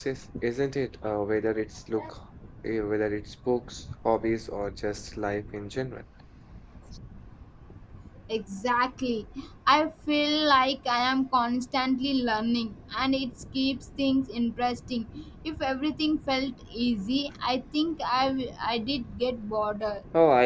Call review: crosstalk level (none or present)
none